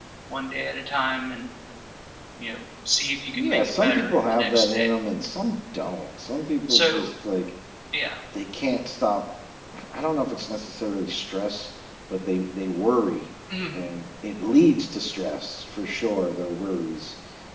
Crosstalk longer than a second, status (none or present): present